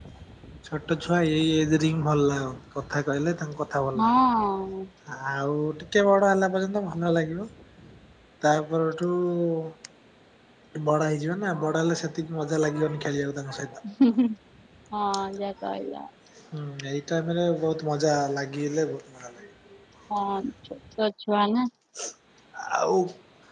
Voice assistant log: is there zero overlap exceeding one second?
Yes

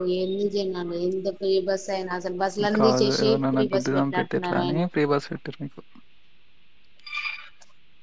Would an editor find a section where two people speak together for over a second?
Yes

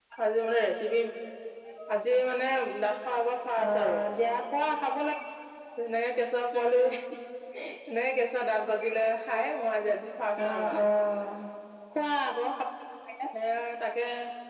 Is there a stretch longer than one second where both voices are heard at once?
No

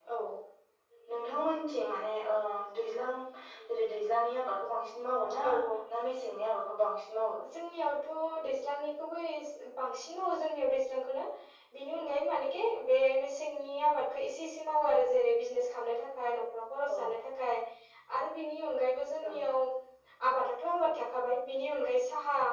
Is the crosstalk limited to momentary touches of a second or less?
Yes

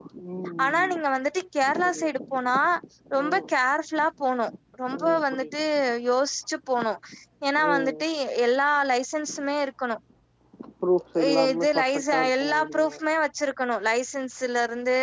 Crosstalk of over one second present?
Yes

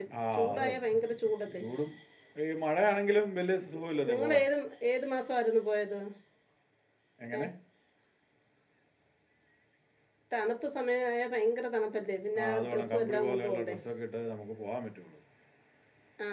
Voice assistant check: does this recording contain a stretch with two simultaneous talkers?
Yes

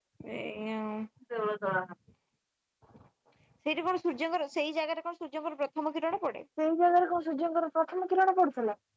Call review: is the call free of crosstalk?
Yes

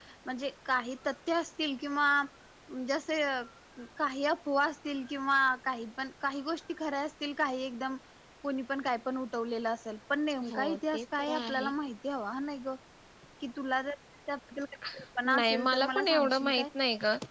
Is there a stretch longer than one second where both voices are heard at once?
Yes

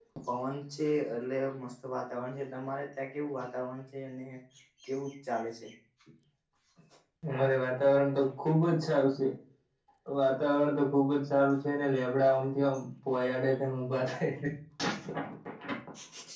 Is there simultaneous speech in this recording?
No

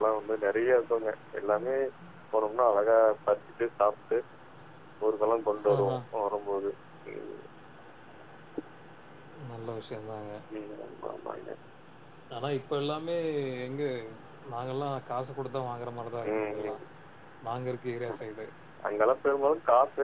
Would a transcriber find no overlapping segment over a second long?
Yes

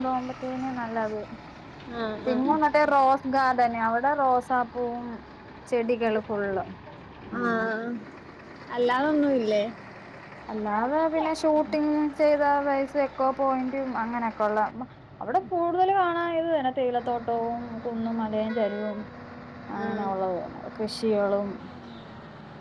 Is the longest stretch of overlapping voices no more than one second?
Yes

